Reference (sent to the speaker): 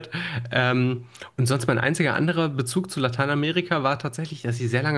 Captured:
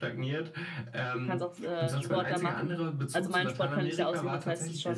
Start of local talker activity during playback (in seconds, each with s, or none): 1.2 s